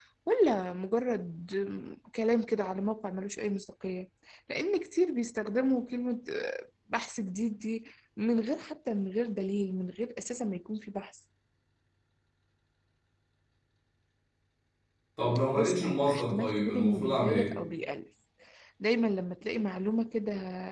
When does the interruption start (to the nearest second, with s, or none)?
16 s